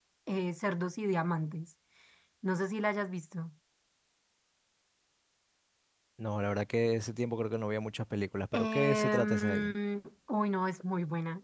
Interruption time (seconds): 8.5 s

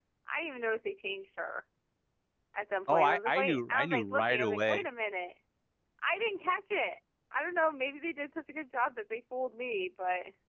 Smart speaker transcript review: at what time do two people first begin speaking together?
2.9 s

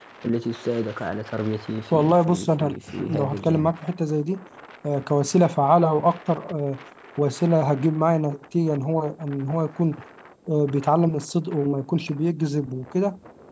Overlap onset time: 1.9 s

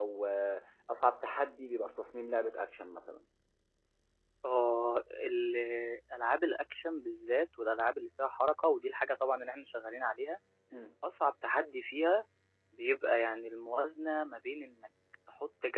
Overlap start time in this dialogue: none

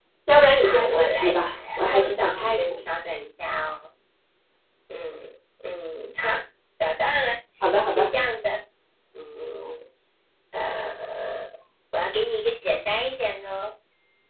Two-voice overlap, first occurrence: 0.6 s

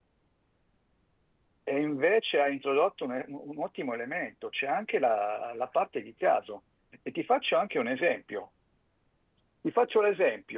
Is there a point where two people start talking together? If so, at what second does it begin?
none

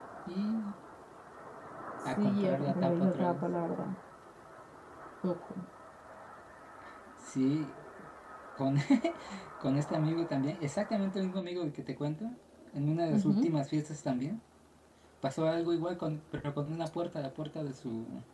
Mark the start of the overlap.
2.0 s

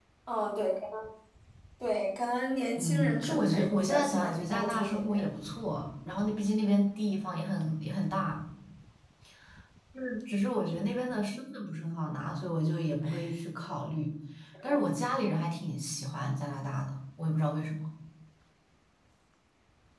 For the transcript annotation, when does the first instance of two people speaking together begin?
2.8 s

